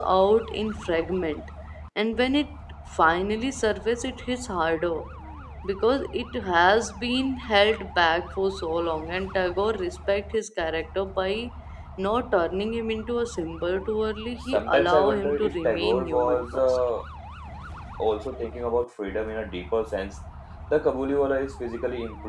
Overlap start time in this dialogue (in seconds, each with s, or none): 14.5 s